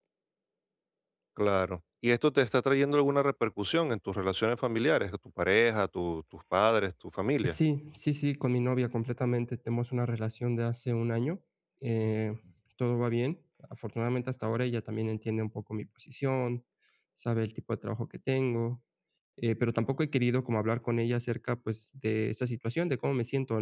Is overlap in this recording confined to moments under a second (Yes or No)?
Yes